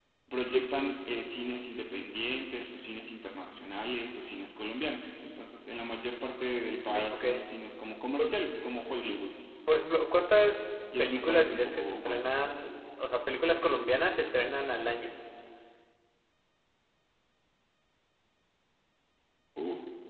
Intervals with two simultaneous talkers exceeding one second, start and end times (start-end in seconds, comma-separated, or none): 11.0-12.2